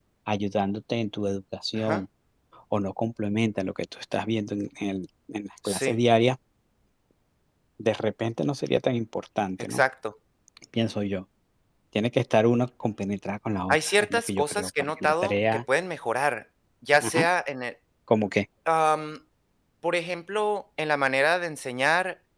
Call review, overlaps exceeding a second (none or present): present